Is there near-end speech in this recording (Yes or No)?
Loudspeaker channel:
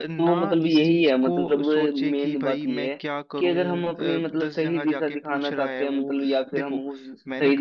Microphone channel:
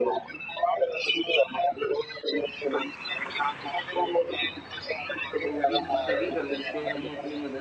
Yes